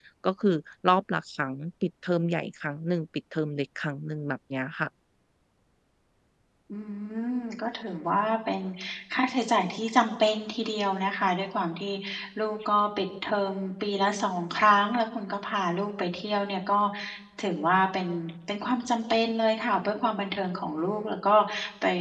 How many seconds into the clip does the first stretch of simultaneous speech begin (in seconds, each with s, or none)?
none